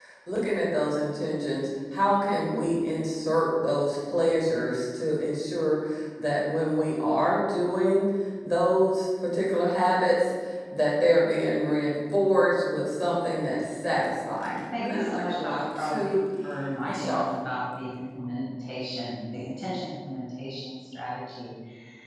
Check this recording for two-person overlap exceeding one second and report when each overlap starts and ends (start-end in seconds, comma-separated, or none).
14.7-16.2